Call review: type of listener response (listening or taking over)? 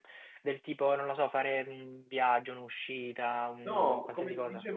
taking over